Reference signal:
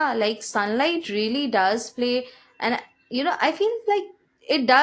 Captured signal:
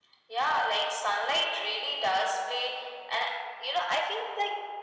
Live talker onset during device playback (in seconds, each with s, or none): none